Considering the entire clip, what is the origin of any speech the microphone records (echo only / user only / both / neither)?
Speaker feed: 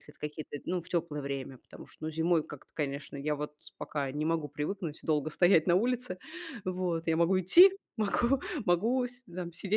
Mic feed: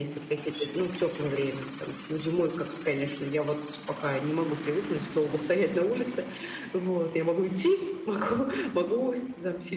echo only